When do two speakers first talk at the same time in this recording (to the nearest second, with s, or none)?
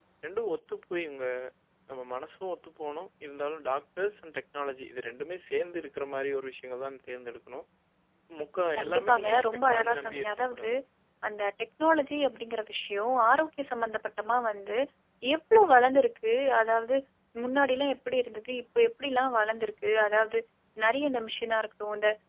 9 s